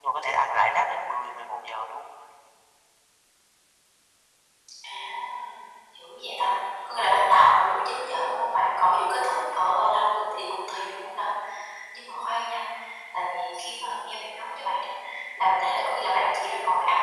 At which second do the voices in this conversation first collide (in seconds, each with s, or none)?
none